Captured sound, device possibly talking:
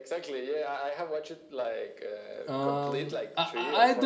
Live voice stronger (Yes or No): Yes